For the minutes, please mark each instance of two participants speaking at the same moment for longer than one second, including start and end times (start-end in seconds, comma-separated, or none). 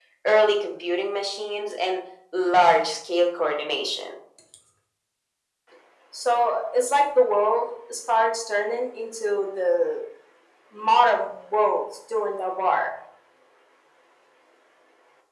none